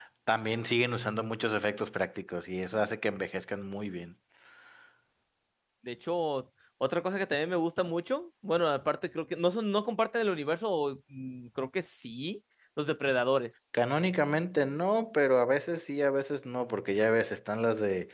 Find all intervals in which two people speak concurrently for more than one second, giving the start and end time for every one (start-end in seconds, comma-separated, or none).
none